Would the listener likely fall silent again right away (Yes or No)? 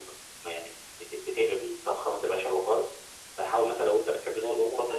No